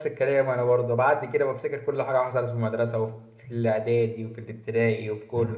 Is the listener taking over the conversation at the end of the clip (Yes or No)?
Yes